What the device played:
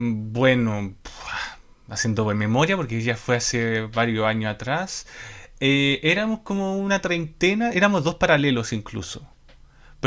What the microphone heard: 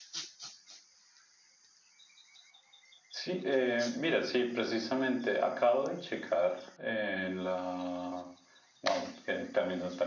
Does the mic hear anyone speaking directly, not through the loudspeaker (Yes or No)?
Yes